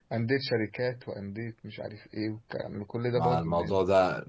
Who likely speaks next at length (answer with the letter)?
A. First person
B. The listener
B